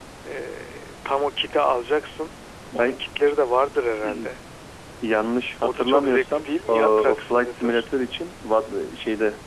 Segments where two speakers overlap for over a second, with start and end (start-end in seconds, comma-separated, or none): 5.6-7.8